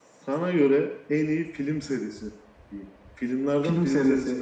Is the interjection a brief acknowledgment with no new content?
No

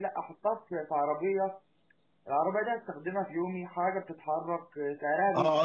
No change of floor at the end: No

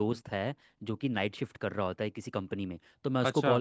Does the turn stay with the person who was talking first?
Yes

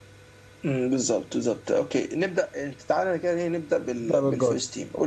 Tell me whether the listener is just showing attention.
Yes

